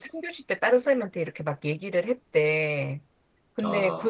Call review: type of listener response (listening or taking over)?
listening